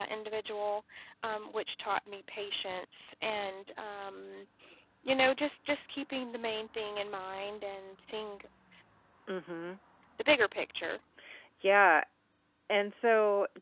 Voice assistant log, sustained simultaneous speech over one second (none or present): none